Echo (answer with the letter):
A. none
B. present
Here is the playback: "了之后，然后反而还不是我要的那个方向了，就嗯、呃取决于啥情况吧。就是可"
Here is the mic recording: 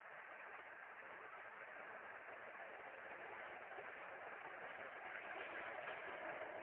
A